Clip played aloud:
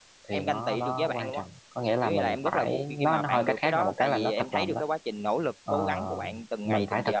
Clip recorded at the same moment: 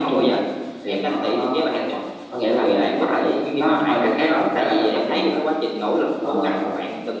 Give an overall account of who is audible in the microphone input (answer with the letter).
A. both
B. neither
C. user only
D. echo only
D